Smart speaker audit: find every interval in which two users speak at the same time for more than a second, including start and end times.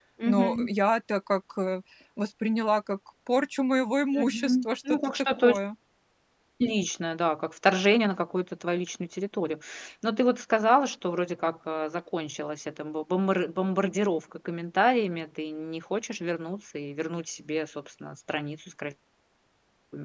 4.2-5.5

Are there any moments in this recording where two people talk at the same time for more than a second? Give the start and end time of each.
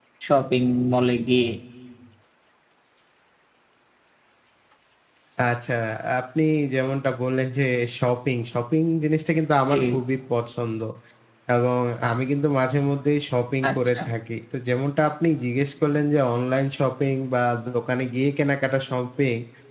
none

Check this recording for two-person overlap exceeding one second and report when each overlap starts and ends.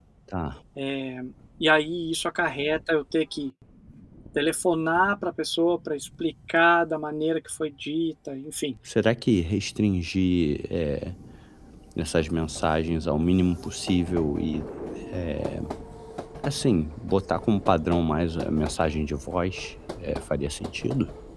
none

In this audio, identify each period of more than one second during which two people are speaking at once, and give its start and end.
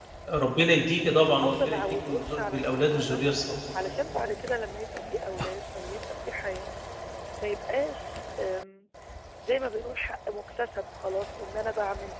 1.4-3.2

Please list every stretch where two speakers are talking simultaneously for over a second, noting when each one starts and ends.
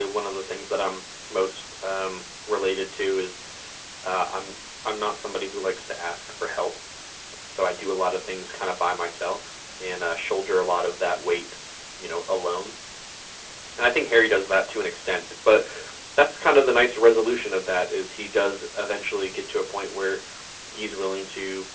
none

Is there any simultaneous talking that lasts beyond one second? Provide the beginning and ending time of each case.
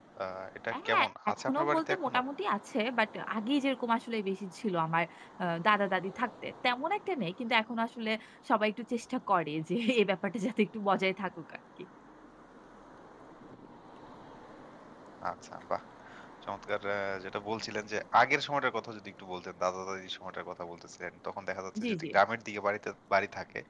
0.9-2.2

